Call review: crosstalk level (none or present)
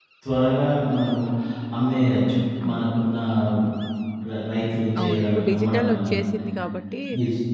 present